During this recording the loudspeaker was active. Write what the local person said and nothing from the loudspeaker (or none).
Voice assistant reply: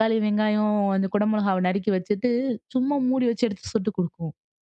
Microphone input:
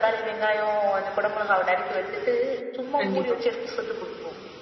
கண்டிப்பா,